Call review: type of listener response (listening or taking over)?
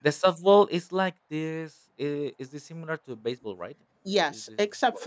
taking over